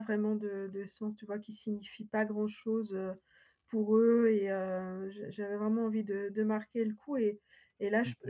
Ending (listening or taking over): listening